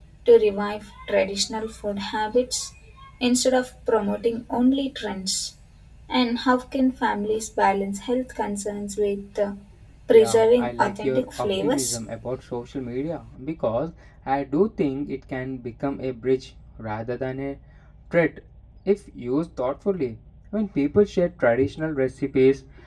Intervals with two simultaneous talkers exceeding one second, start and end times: 10.1-12.0

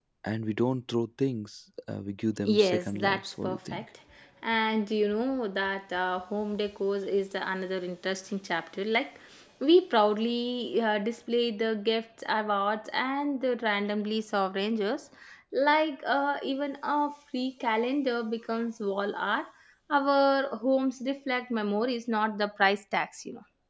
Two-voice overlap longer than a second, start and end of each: 2.5-3.8

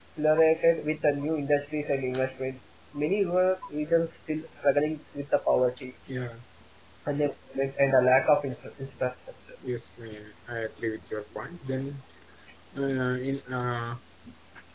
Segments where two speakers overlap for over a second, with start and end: none

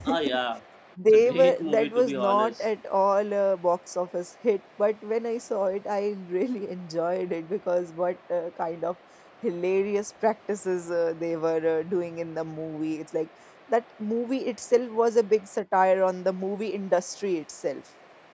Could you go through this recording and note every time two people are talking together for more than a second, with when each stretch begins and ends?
1.1-2.6

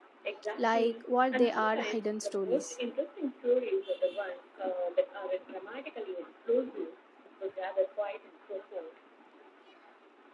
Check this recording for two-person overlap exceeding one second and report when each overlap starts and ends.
0.6-2.8

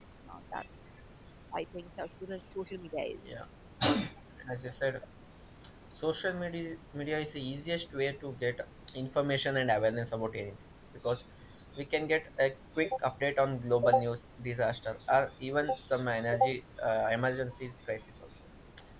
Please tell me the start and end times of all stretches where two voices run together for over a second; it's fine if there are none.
none

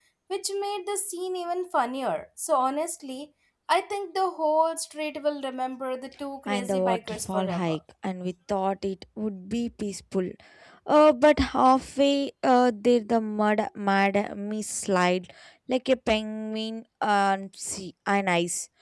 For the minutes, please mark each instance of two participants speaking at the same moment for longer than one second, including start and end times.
6.5-7.8

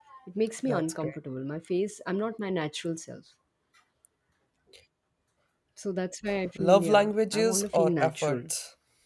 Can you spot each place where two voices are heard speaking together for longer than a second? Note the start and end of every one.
6.6-8.4

